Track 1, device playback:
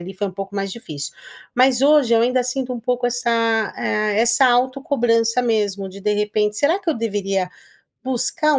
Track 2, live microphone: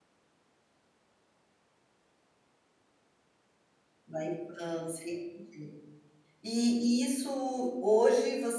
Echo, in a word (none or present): none